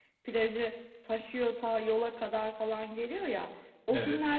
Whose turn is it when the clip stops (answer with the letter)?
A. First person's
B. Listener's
A